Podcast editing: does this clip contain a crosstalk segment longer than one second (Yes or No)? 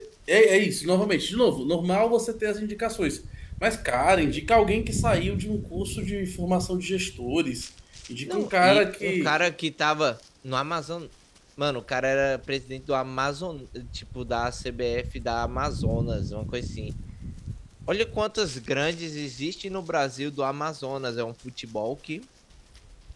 Yes